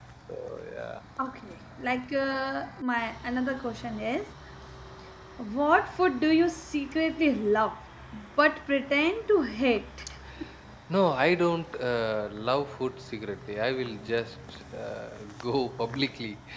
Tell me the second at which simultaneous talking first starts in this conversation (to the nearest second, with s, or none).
none